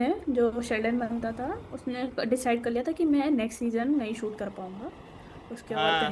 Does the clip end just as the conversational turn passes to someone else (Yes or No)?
Yes